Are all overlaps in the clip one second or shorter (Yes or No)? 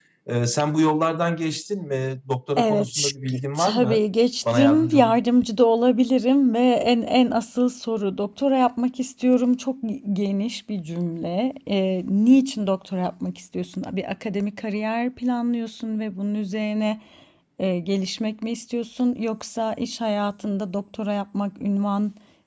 No